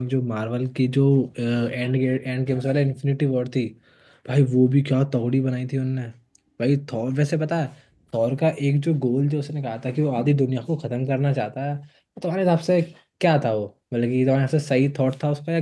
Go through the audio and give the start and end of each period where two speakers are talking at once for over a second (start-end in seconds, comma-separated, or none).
none